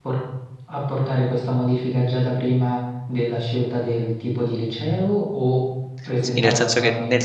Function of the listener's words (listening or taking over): taking over